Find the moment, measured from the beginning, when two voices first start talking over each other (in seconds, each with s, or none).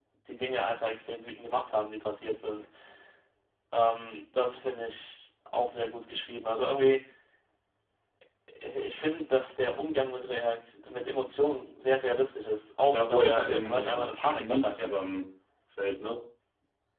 12.9 s